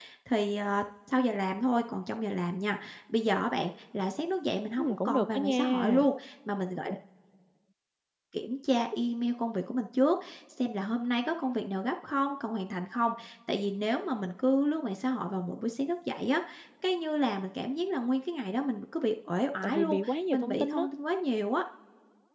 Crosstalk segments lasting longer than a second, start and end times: 4.8-6.1

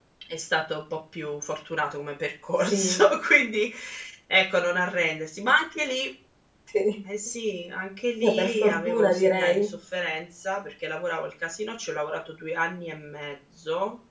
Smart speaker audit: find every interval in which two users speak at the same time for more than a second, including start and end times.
8.2-9.7

